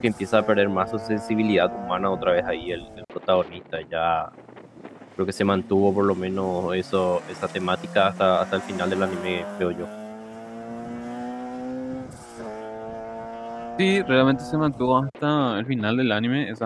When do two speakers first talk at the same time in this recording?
none

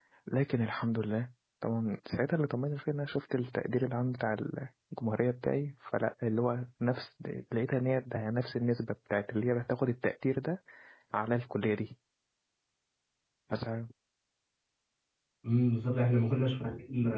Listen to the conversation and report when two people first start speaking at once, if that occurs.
none

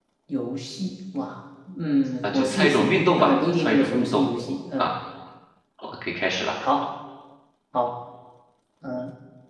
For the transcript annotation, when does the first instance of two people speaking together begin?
2.2 s

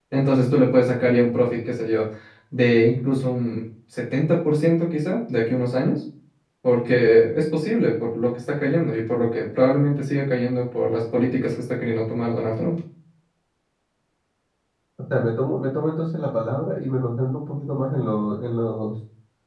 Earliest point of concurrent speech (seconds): none

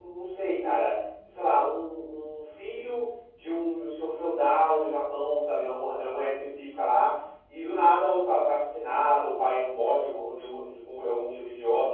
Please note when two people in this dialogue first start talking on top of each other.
none

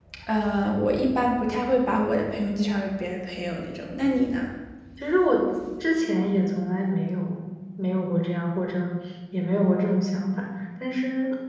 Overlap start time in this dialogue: none

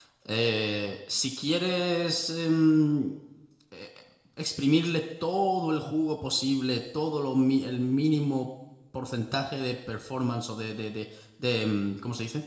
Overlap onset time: none

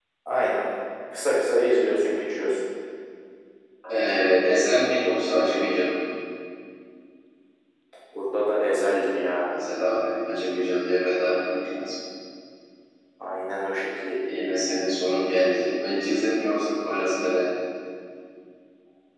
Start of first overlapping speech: none

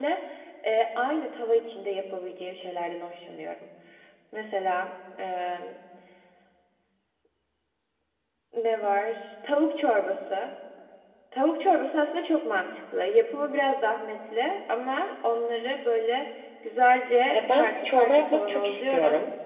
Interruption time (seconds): 17.3 s

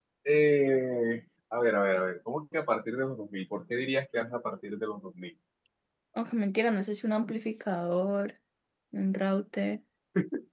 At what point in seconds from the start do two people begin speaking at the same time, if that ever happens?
none

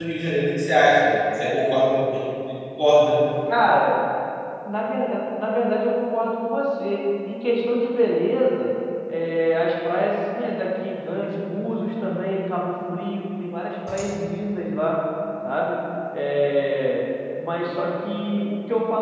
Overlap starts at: none

